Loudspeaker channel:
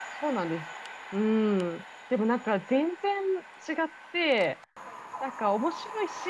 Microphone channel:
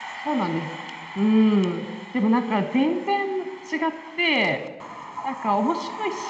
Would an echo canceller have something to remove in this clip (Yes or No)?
Yes